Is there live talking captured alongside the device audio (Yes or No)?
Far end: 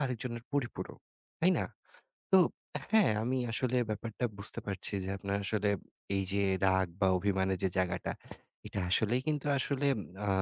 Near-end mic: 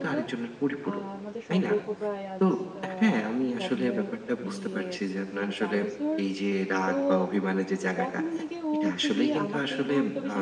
Yes